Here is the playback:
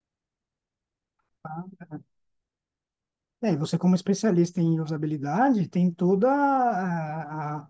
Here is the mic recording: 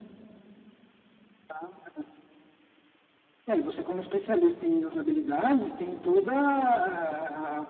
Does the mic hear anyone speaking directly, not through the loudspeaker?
No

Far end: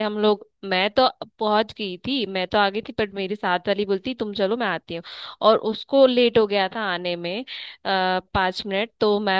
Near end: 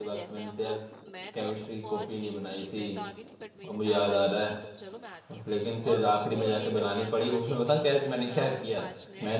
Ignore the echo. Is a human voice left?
Yes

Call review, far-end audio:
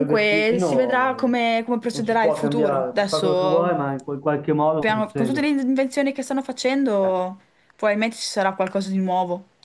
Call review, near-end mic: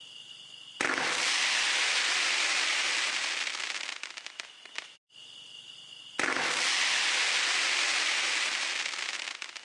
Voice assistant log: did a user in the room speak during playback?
No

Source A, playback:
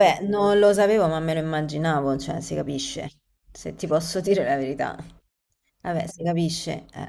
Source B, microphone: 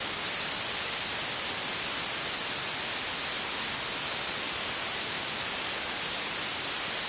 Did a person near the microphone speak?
No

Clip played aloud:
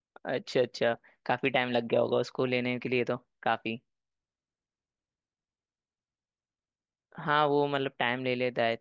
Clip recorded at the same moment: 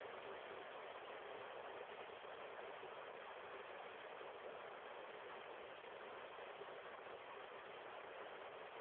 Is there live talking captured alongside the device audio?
No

